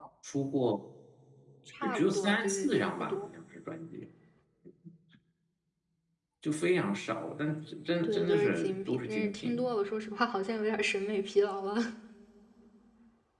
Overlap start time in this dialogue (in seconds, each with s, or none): 1.8 s